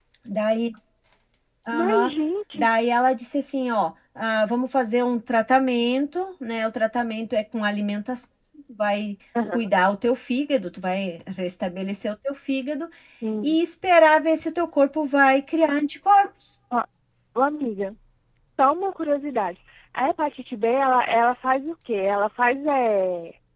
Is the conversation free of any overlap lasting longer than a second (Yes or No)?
Yes